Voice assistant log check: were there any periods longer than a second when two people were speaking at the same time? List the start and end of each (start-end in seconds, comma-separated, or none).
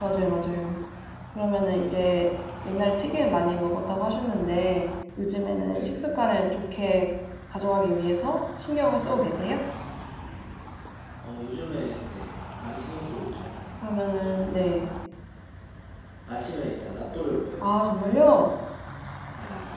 none